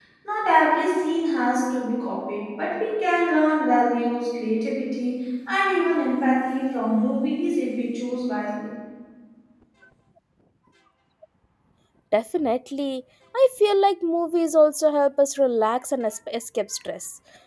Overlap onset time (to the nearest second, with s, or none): none